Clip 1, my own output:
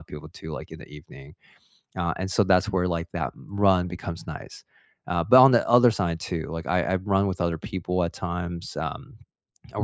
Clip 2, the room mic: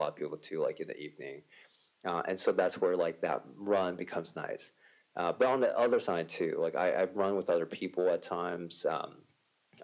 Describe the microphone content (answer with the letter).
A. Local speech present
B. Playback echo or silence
B